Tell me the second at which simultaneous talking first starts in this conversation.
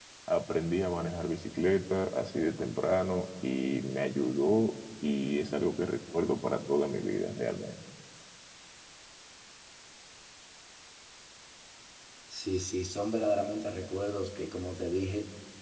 none

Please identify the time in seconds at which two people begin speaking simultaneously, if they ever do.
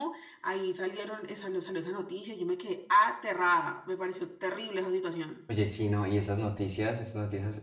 none

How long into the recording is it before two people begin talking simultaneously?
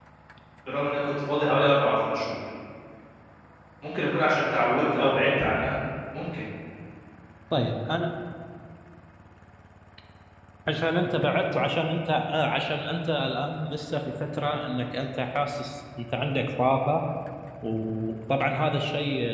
none

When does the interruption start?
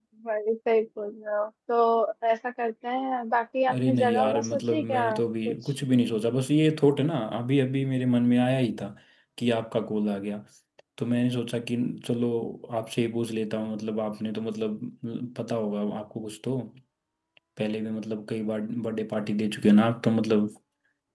4 s

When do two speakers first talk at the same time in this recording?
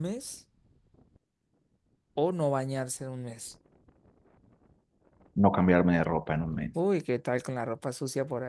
none

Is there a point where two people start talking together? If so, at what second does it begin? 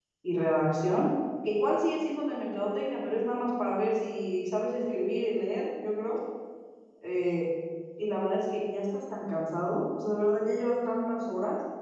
none

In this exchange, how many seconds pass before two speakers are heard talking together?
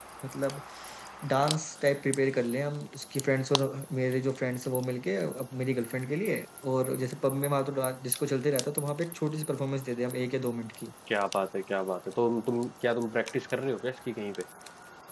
none

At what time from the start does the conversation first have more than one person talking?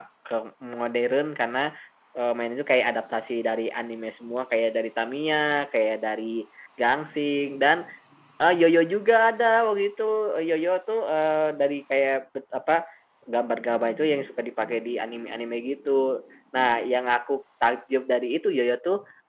none

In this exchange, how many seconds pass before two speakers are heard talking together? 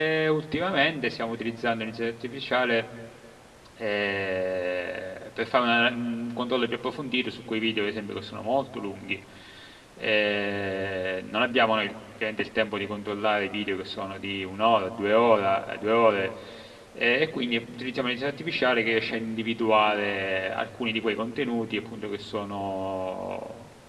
none

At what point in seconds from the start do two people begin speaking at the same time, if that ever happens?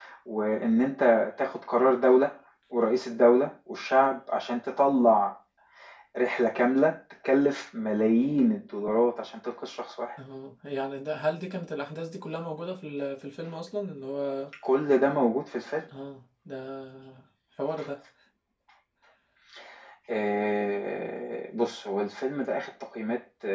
none

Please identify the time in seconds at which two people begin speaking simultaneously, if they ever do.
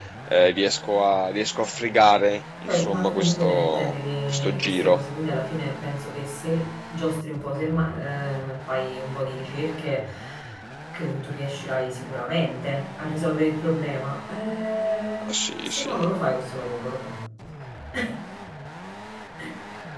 3 s

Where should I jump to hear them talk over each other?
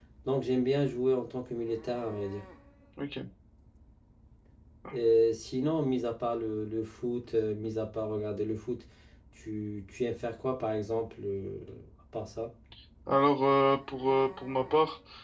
none

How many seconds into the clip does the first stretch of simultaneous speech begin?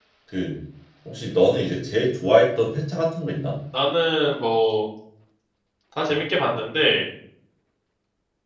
none

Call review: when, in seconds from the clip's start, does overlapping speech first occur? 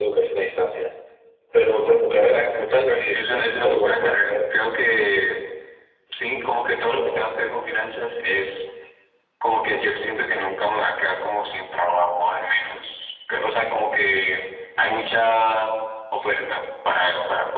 3 s

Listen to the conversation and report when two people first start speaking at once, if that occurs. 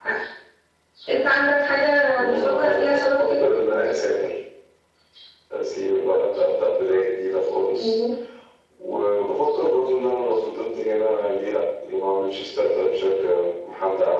2 s

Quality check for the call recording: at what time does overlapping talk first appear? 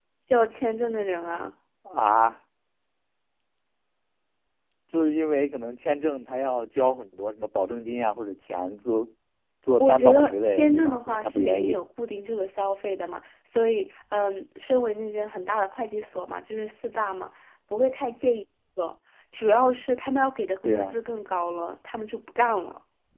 10 s

